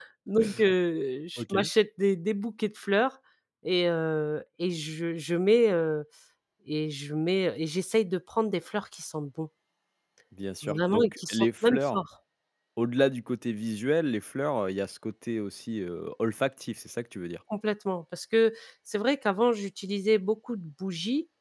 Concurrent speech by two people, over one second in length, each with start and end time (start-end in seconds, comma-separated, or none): 10.6-12.0